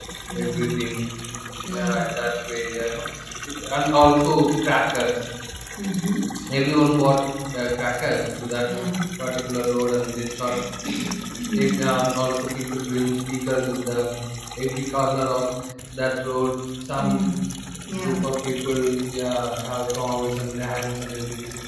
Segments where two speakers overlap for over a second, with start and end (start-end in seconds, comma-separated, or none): none